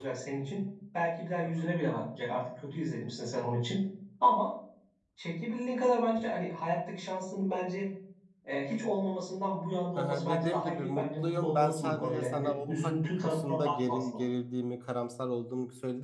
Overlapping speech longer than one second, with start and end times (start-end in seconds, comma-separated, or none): 10.0-14.1